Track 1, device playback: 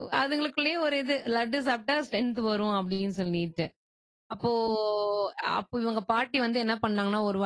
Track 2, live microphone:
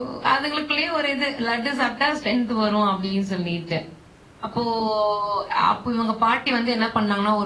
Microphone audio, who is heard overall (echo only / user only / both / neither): echo only